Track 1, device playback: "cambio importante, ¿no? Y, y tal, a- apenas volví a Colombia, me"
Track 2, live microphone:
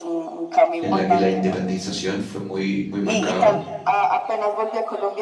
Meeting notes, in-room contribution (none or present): present